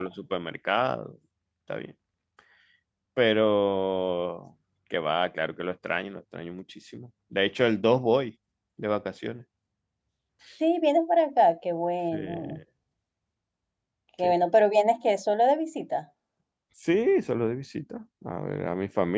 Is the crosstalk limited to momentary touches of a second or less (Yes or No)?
Yes